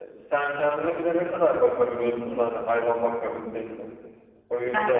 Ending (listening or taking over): taking over